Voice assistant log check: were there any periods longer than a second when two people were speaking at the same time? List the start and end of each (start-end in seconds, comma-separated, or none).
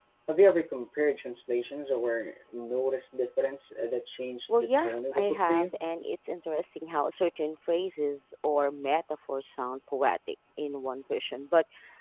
4.5-5.7